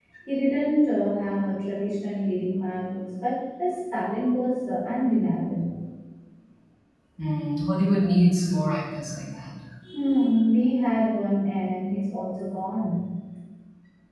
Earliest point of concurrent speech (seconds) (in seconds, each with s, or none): none